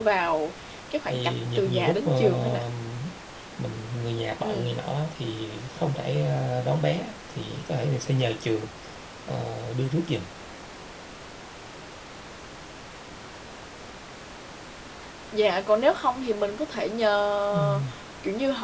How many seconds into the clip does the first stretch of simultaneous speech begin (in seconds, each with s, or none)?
1.1 s